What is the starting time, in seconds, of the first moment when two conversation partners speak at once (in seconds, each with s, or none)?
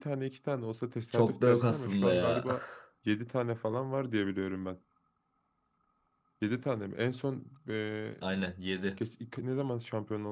1.1 s